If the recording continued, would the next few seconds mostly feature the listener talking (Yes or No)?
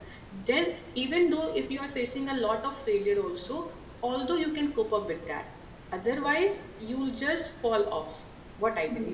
Yes